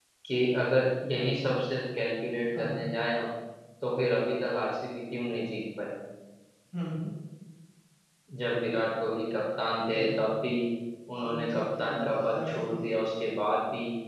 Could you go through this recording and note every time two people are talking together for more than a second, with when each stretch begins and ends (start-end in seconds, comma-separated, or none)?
11.2-12.8